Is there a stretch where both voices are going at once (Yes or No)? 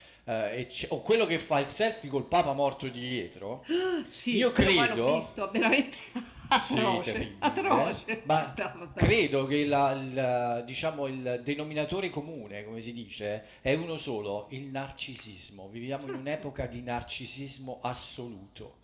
Yes